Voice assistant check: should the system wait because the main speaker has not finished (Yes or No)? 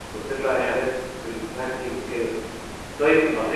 No